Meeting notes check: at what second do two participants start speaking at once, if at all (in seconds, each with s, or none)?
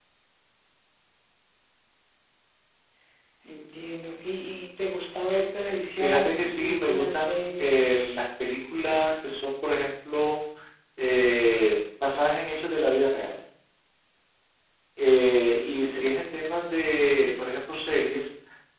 6.0 s